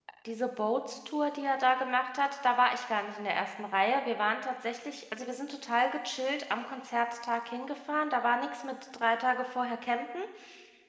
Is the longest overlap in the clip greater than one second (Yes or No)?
No